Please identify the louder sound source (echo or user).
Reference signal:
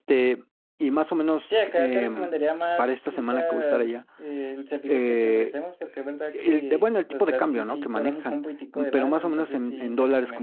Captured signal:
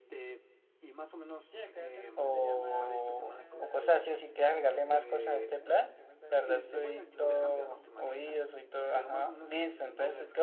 user